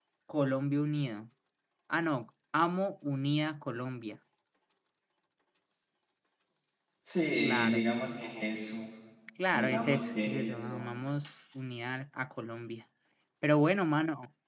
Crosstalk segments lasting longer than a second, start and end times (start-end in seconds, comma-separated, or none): 9.5-10.9